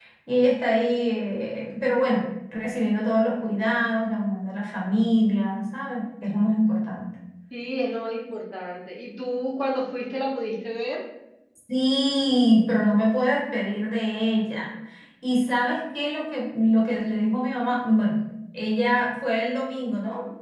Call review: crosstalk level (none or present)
none